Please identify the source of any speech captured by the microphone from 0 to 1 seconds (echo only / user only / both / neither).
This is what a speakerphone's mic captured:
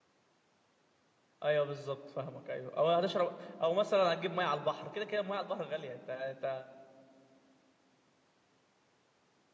neither